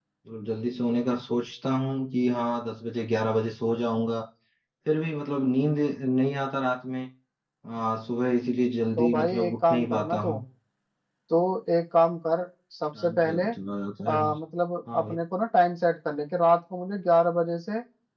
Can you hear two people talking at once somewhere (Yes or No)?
Yes